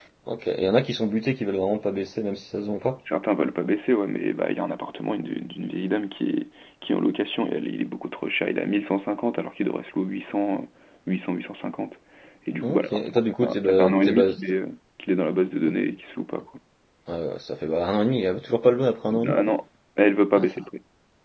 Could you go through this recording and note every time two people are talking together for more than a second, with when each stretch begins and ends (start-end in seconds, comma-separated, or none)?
12.6-14.3